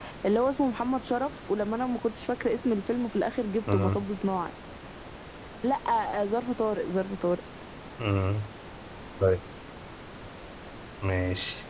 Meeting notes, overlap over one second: none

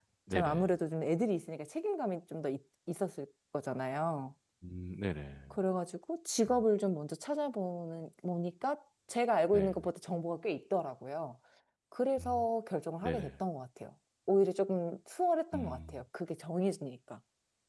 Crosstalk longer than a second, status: none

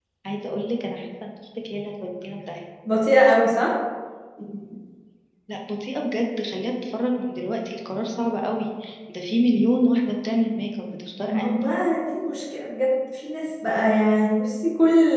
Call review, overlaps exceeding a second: none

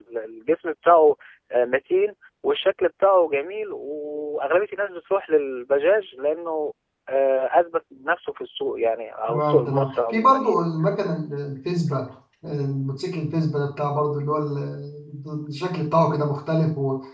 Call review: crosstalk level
present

